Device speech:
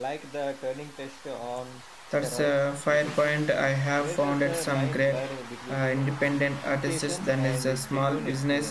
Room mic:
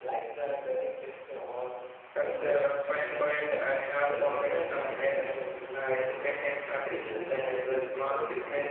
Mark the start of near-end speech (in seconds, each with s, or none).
none